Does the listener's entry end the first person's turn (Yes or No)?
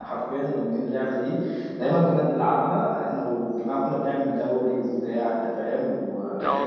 No